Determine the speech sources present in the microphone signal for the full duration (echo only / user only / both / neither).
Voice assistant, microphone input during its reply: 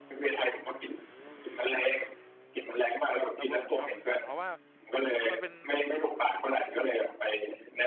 both